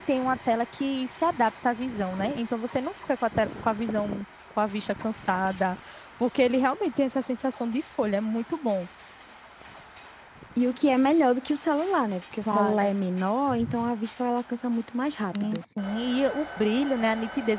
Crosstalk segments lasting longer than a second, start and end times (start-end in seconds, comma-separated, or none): none